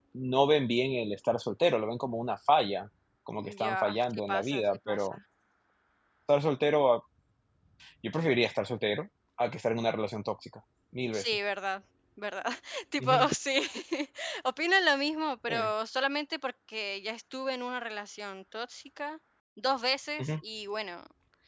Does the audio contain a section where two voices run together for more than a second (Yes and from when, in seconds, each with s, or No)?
Yes, from 3.6 s